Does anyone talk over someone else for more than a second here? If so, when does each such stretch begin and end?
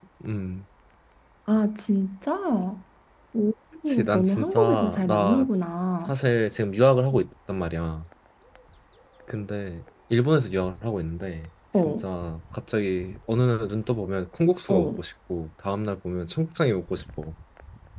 3.9-5.4

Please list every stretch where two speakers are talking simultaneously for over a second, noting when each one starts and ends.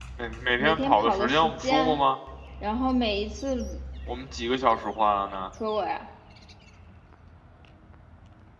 0.6-2.0

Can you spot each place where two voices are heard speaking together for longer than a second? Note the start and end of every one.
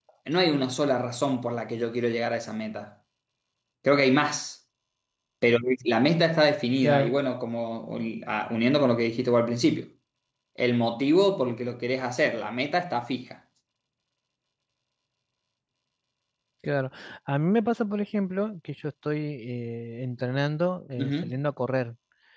none

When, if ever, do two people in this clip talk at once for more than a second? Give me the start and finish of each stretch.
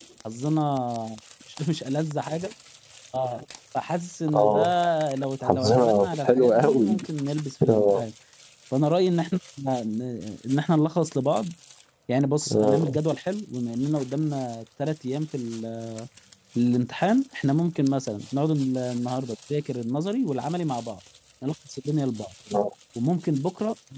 5.4-7.0

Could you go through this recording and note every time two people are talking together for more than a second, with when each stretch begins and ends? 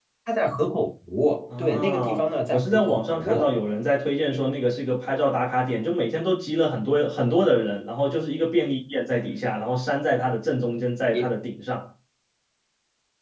1.5-3.5

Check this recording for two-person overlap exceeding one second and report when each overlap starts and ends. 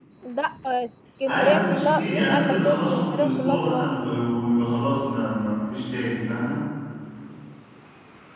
1.3-3.9

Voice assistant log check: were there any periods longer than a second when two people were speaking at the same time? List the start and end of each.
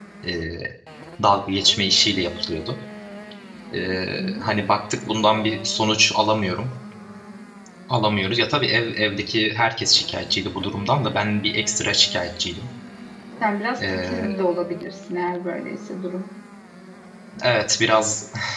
none

